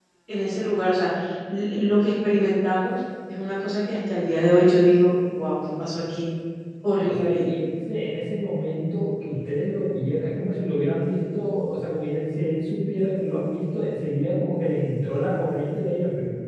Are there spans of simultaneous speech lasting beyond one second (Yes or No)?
No